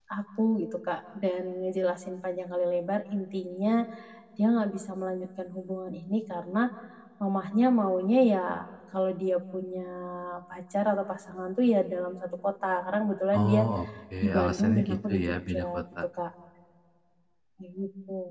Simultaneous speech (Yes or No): Yes